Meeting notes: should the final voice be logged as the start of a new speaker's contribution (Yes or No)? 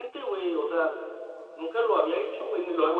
Yes